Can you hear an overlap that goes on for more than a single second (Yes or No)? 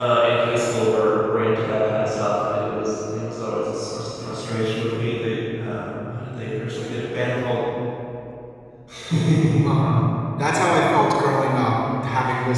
No